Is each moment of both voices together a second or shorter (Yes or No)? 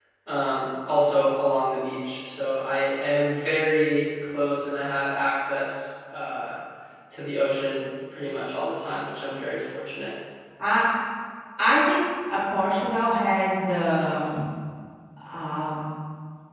Yes